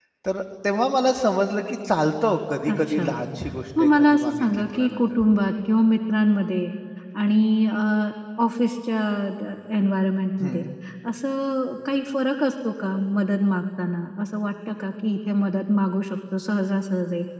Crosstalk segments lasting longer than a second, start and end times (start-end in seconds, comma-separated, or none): 3.8-5.2